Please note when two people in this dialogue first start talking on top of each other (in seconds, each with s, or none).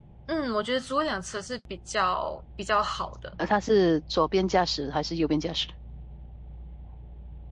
none